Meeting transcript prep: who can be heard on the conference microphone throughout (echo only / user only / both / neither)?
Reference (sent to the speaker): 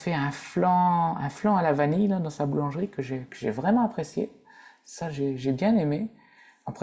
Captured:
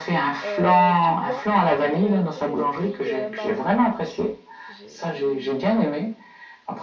both